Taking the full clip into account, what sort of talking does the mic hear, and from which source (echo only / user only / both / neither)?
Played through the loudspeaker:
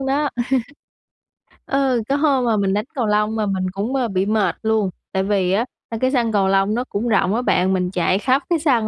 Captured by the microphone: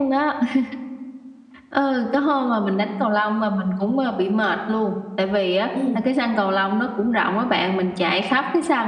both